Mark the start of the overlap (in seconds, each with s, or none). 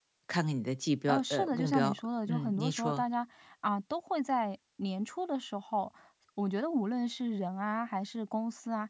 1.1 s